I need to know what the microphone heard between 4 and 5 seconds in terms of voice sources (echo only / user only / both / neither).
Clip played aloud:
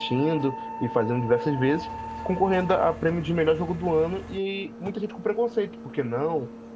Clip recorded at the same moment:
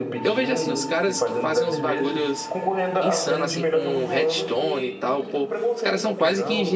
both